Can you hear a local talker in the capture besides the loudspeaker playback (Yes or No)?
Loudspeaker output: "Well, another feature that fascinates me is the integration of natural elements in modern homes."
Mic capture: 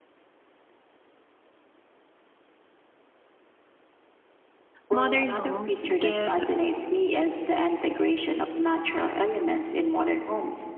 Yes